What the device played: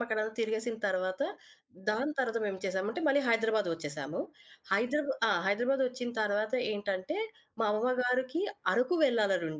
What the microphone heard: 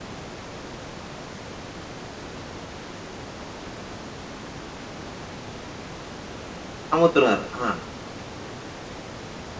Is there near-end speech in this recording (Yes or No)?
Yes